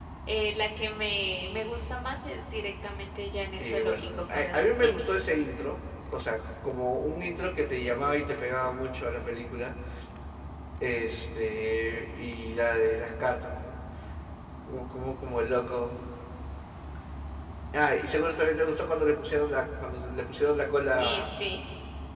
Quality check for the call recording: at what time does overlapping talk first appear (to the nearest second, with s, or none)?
4 s